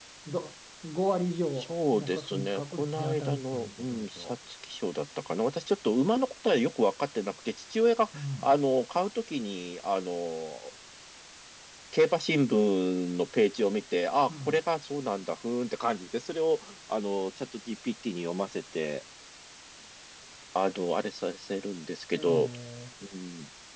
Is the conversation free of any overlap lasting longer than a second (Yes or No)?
No